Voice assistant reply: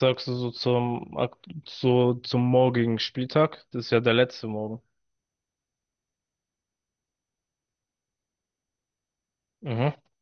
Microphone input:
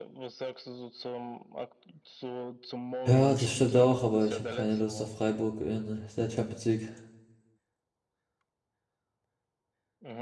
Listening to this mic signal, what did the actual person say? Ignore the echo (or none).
Ja, das stimmt auch, aber ich habe keine Lust auf Freiburg in der Champions League,